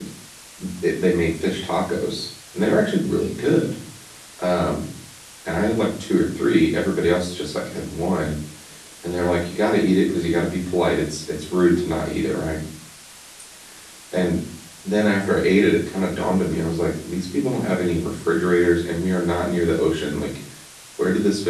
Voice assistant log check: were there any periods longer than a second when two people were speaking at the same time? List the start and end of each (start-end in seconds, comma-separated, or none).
none